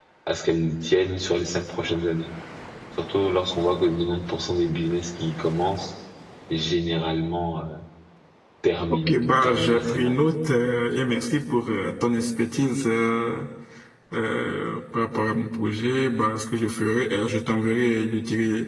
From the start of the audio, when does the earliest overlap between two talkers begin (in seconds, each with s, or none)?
8.9 s